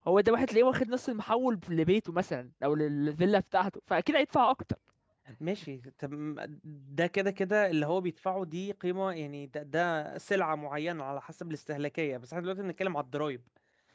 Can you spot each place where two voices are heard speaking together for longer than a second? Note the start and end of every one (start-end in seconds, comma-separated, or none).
none